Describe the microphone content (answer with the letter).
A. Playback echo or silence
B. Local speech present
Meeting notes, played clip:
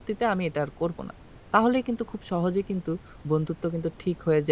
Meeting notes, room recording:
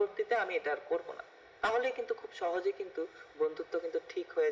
A